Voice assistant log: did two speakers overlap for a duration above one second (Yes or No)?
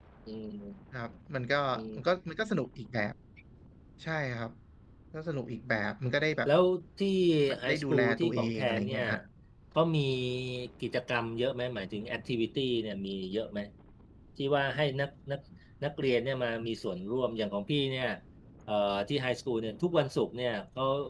Yes